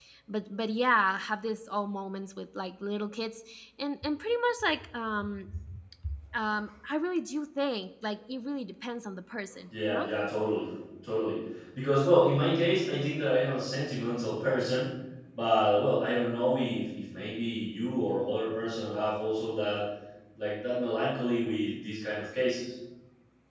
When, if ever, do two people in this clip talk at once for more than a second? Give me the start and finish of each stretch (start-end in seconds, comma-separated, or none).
none